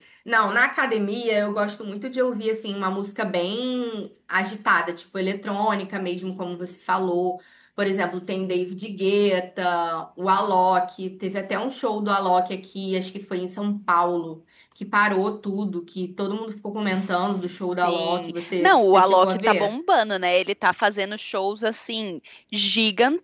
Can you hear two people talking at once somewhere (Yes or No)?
Yes